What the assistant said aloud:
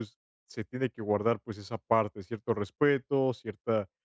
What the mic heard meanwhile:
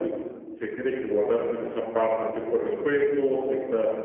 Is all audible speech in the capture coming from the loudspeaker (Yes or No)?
Yes